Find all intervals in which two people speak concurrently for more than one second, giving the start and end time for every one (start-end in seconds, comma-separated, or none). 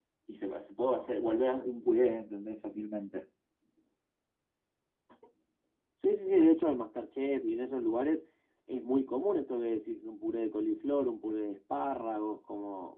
none